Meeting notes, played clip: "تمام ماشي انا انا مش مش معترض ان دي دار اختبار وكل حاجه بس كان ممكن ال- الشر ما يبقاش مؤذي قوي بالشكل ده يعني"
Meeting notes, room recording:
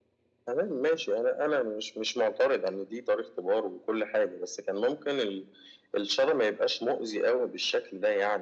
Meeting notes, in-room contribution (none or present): none